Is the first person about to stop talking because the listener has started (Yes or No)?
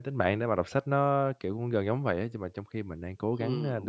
Yes